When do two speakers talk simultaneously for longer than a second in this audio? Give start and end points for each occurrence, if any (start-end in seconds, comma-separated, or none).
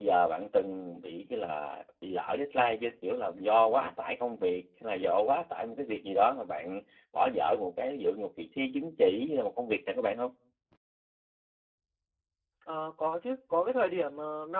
none